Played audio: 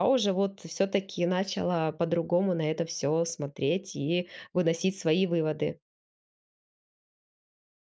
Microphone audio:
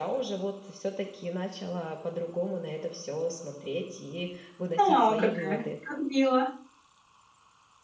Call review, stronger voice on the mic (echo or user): user